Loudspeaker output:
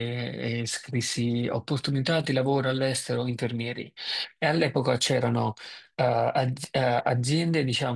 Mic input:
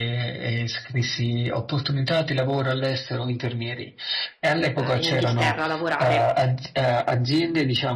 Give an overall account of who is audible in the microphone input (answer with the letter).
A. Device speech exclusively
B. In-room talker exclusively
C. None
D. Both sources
D